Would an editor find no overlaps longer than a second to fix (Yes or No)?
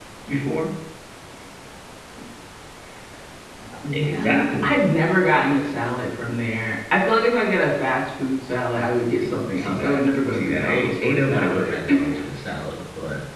No